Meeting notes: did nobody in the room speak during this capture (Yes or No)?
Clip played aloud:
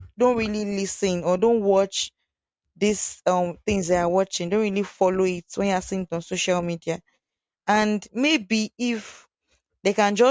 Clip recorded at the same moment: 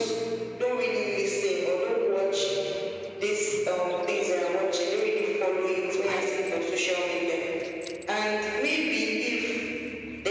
Yes